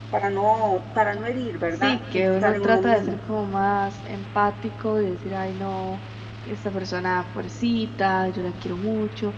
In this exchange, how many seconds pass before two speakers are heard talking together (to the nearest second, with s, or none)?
2 s